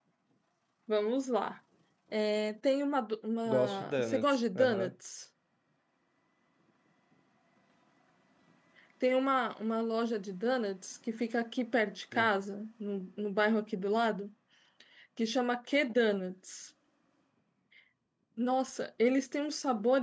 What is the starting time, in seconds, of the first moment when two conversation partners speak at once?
3 s

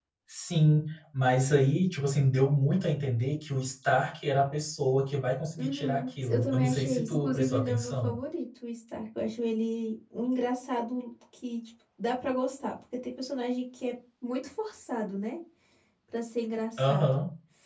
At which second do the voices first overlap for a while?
6 s

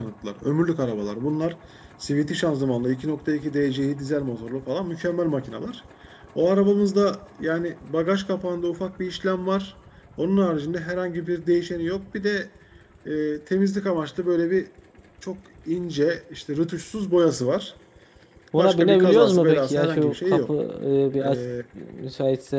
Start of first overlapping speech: 19 s

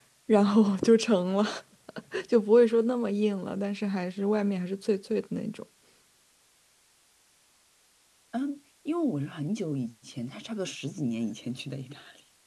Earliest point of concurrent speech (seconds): none

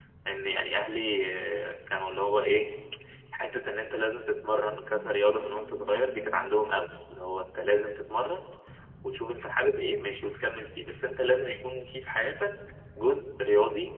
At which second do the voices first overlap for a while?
none

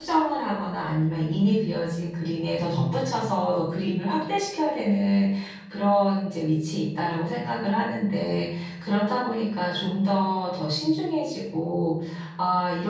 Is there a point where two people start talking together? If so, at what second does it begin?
none

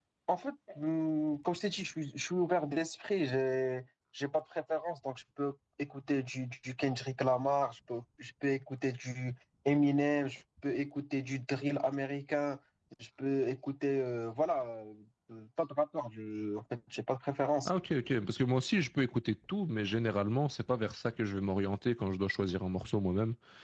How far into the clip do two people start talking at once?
none

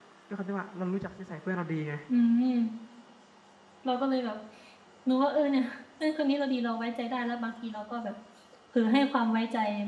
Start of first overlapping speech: none

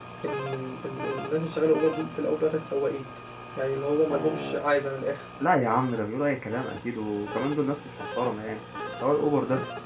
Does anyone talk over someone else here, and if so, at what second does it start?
none

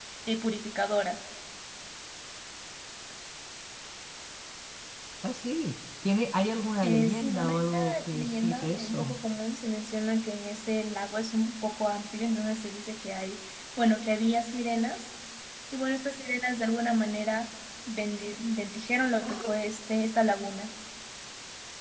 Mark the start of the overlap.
7 s

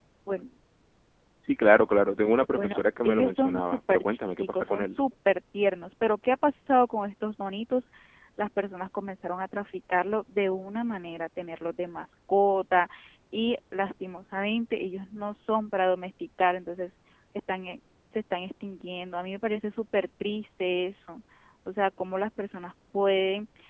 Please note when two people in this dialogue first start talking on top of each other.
3 s

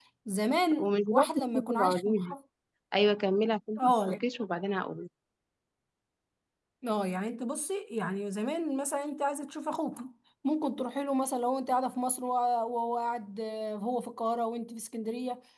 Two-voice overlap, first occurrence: 1 s

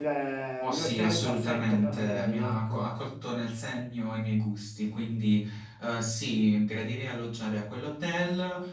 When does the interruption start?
1 s

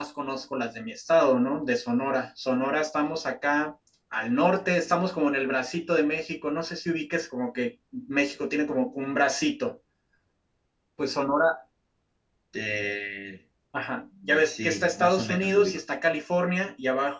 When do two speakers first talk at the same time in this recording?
14 s

